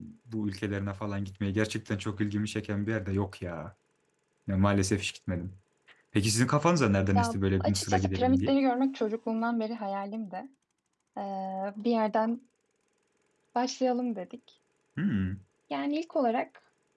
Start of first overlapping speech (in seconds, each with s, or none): 7.2 s